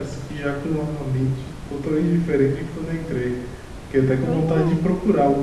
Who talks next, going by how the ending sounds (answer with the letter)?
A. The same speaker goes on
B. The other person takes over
A